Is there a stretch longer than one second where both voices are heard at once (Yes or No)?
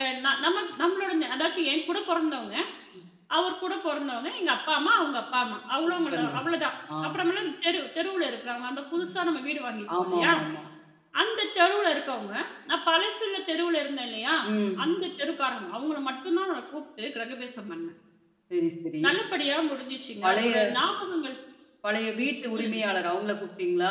No